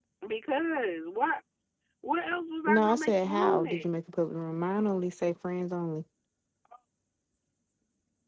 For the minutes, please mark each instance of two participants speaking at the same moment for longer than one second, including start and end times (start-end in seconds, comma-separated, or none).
2.7-3.9